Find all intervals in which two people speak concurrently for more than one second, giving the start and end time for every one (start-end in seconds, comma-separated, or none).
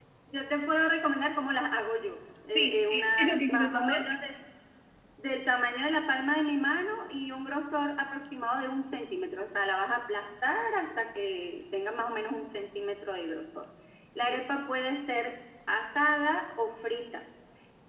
2.6-4.0